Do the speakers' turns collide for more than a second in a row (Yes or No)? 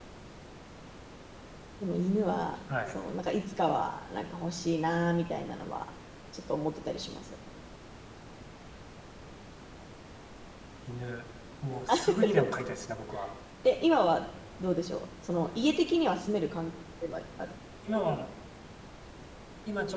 No